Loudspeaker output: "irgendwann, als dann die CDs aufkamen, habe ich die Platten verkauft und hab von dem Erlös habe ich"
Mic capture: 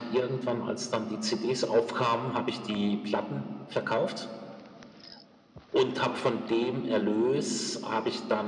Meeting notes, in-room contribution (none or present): none